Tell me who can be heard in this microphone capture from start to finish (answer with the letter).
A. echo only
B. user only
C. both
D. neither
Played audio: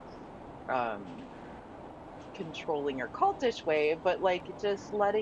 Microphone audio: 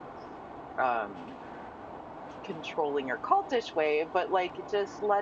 A